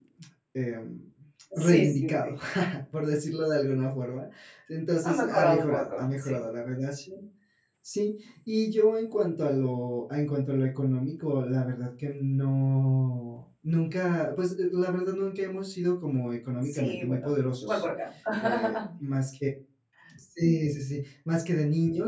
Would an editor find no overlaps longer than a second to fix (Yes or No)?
No